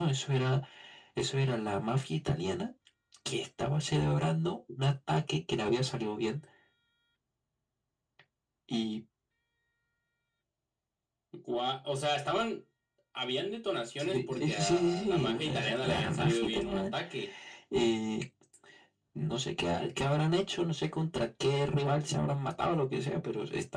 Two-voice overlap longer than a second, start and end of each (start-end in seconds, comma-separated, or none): 14.0-16.9